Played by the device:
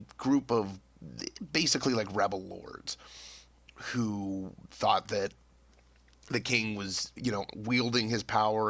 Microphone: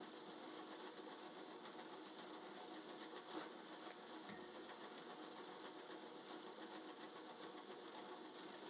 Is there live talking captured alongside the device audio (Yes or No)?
No